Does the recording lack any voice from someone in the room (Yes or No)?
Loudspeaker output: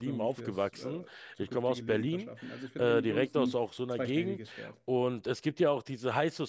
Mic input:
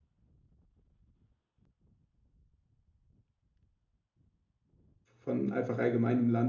No